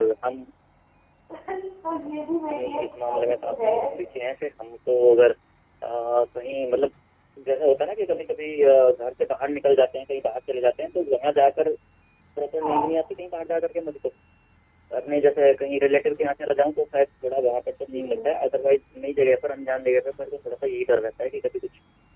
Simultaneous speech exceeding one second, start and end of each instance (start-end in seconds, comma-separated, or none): 2.5-3.7